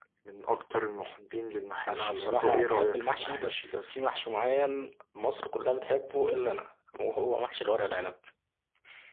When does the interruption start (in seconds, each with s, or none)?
1.9 s